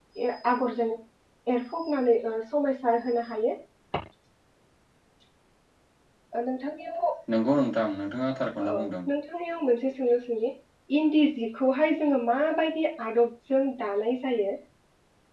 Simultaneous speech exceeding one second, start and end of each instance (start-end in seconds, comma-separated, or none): none